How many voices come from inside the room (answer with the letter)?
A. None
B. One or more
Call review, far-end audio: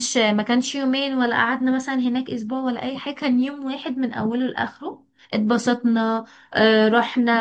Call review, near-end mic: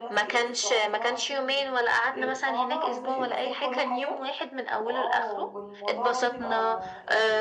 B